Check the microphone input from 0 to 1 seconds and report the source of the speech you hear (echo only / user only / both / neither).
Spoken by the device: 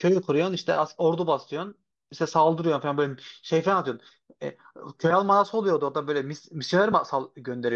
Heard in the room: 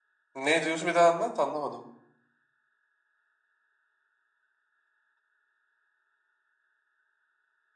user only